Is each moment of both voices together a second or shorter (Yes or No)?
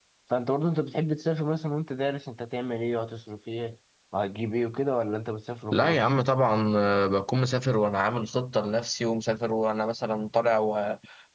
Yes